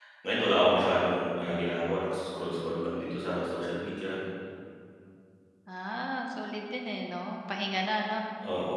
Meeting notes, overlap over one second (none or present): none